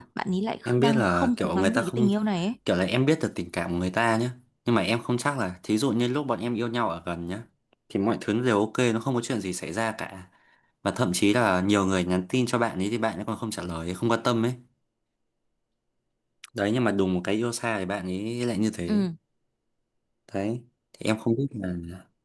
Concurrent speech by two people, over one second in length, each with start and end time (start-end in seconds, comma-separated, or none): 0.6-2.1